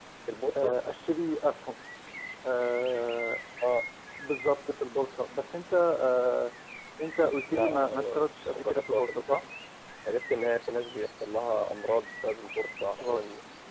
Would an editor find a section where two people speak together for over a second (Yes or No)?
Yes